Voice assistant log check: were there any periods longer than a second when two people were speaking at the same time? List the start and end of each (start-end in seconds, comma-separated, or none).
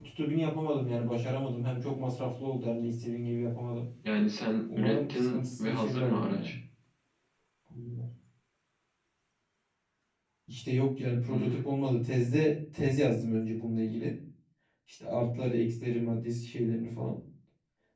4.8-6.5